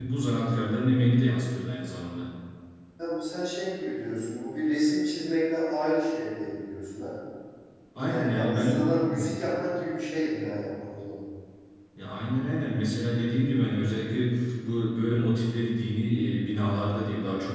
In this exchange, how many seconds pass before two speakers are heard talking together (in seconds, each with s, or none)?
8.1 s